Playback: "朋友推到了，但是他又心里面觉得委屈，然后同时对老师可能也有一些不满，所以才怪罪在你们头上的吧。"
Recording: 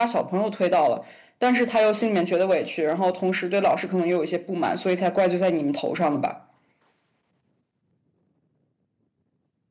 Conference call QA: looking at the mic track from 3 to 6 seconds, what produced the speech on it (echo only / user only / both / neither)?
echo only